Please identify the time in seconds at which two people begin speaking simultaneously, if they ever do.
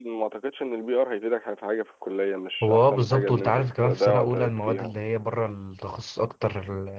2.6 s

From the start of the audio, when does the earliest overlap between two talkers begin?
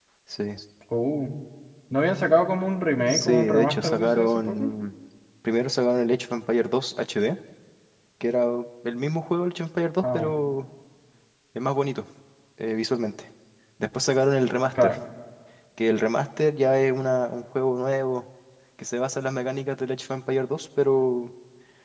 3.1 s

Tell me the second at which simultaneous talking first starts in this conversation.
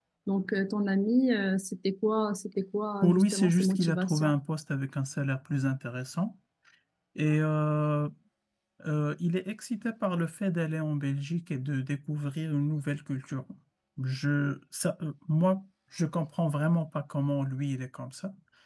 3.0 s

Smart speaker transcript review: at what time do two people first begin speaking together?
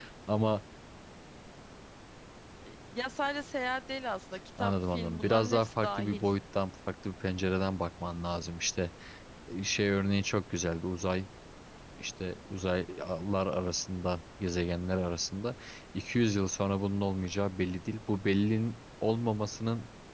4.6 s

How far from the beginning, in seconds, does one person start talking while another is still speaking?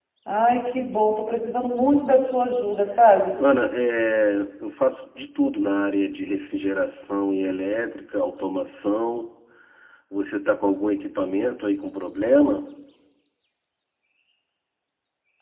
none

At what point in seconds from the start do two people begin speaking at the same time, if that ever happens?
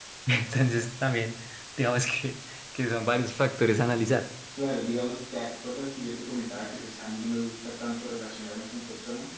none

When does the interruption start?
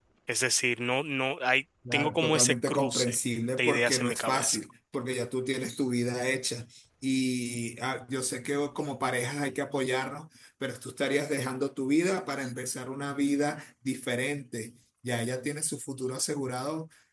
1.9 s

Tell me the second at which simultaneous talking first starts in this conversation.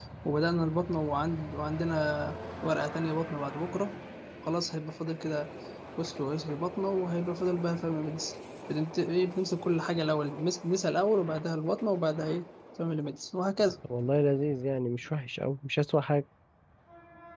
none

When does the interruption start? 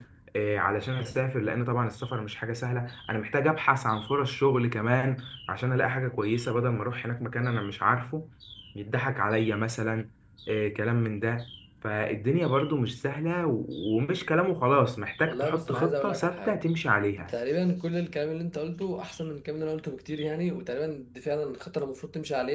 15.3 s

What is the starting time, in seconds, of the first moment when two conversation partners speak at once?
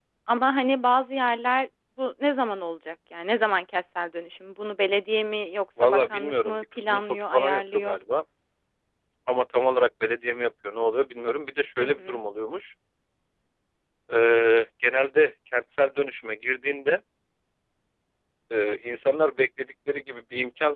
5.8 s

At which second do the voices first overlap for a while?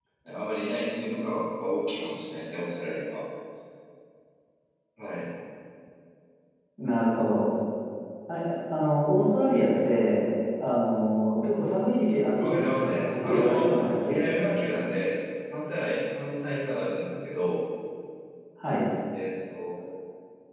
12.4 s

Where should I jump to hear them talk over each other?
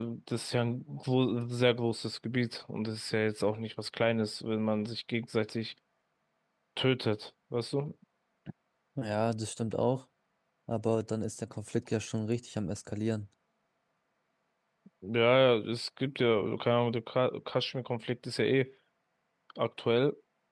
none

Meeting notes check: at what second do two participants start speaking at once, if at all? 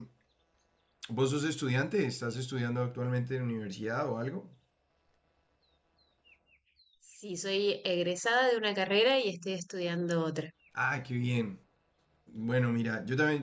none

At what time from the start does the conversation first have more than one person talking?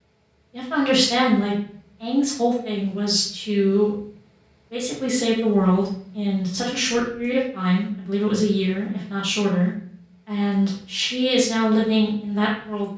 none

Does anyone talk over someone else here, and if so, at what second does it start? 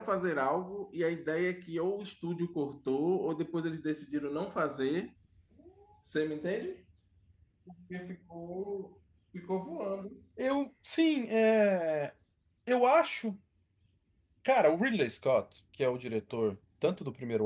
none

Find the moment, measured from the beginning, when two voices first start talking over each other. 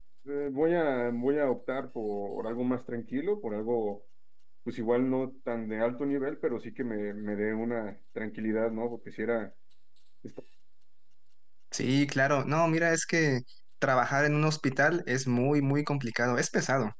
none

